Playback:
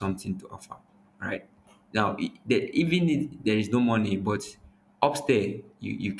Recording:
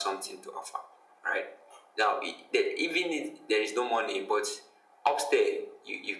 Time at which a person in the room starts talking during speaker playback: none

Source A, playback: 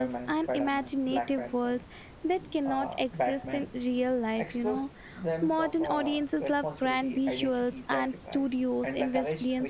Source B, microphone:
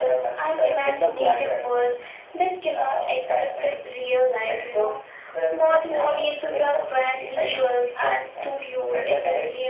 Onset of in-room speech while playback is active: 0.8 s

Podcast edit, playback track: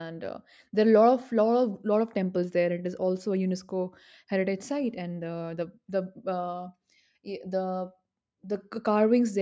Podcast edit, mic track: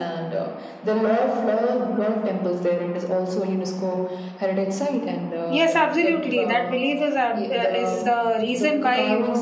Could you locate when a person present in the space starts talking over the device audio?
5.4 s

